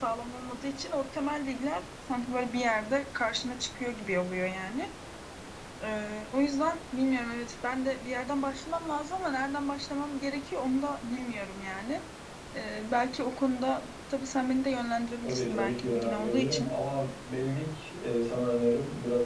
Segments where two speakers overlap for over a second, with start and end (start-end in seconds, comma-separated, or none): 15.2-16.7